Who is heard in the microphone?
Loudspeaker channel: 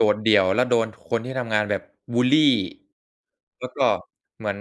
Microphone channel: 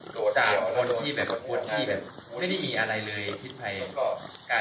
both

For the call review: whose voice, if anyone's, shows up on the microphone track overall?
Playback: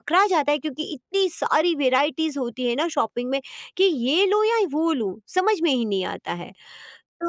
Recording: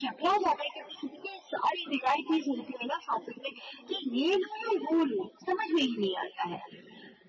echo only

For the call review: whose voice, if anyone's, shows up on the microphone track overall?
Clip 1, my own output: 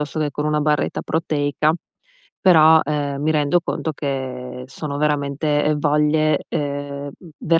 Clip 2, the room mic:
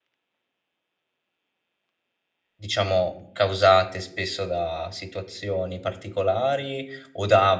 user only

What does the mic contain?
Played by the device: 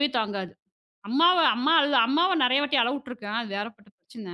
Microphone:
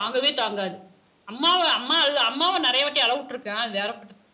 echo only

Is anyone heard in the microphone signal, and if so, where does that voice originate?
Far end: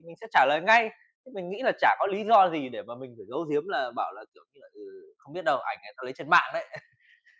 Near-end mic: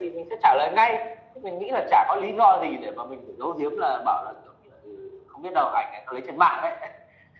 echo only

